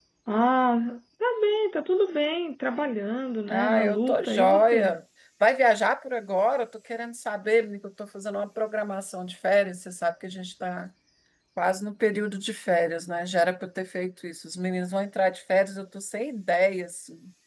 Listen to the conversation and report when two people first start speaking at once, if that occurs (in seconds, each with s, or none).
3.5 s